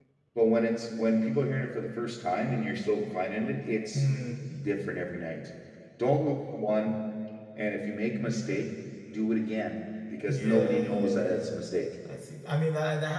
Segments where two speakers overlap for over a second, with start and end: 10.3-11.6

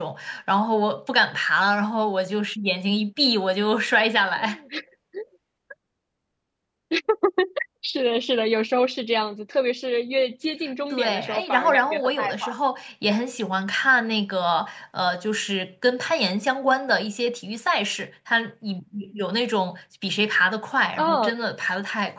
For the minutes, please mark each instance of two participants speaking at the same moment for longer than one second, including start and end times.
10.9-12.6

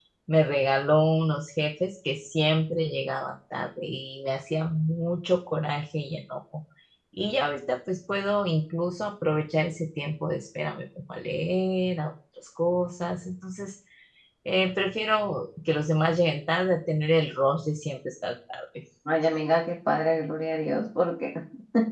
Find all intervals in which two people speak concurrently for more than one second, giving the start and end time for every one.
none

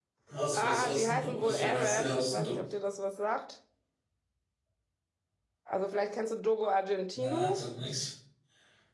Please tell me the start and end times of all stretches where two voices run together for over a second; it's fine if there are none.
0.6-2.6

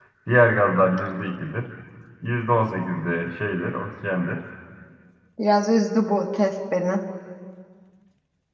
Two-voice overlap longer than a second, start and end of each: none

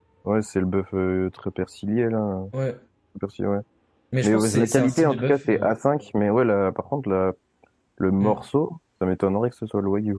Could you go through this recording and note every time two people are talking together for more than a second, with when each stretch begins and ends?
4.2-5.7

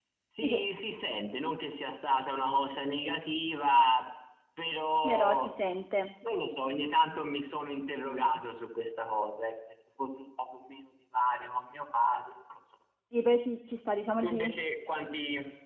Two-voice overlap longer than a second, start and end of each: none

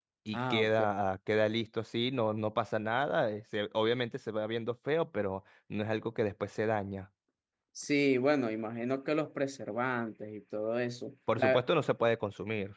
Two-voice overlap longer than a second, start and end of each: none

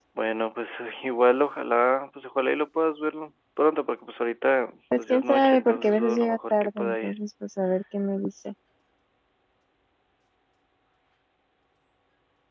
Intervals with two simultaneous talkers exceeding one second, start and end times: 5.0-7.1

